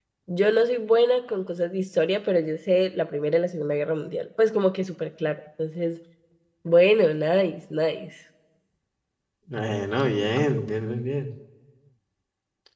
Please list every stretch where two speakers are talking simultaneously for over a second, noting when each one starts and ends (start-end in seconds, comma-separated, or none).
none